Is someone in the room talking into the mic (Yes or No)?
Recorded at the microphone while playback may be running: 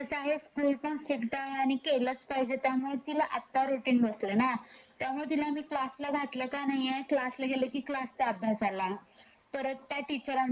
No